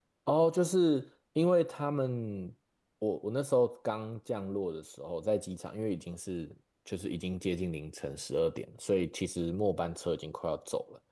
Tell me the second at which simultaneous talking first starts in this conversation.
none

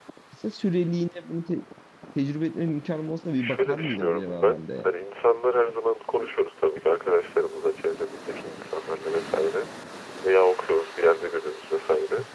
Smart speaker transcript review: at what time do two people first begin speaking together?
3.4 s

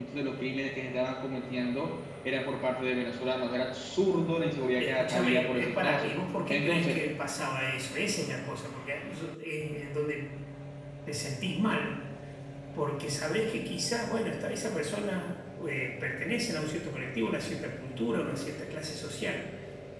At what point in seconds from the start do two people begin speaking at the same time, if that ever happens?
4.8 s

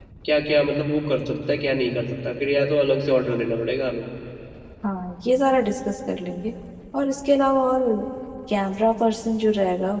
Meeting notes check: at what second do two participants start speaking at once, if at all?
none

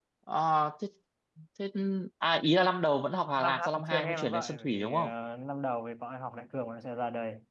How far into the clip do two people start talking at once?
3.4 s

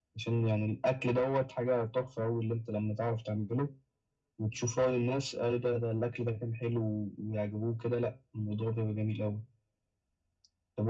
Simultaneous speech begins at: none

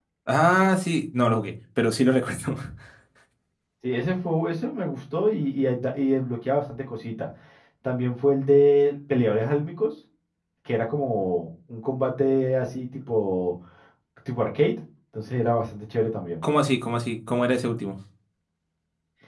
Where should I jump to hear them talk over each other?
none

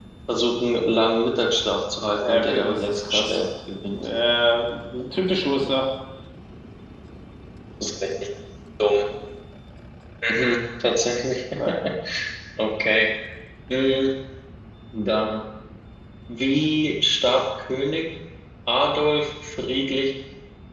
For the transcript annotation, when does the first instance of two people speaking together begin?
2.2 s

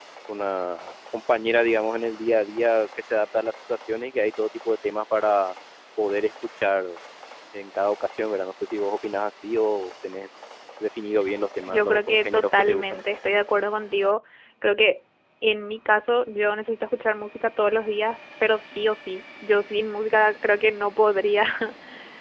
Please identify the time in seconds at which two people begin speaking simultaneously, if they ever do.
11.7 s

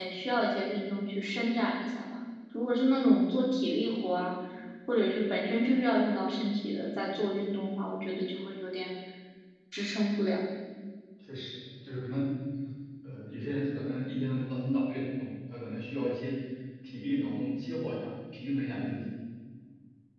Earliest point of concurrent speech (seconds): none

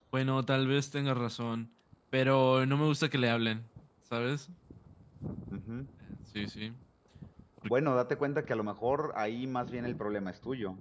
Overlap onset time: none

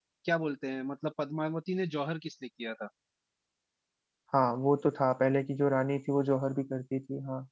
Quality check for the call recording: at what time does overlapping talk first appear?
none

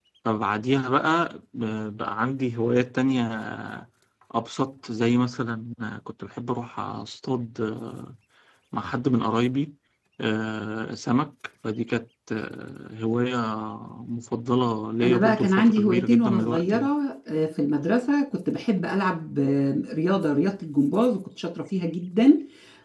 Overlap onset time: 15.0 s

